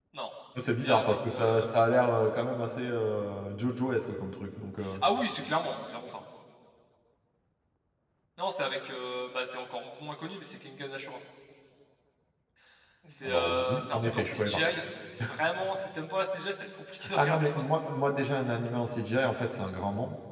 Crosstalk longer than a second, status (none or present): present